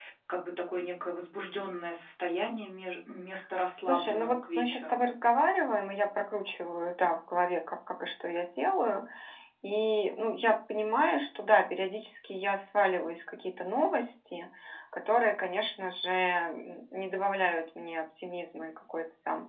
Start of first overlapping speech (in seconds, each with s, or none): 3.8 s